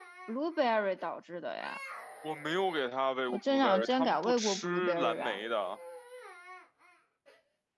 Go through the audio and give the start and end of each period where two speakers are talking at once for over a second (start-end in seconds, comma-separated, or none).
3.3-5.4